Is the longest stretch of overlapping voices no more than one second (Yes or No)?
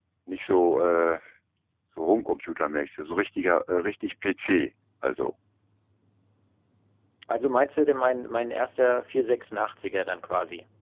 Yes